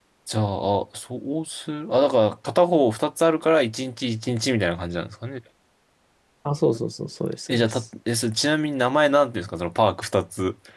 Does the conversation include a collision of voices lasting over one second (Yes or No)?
No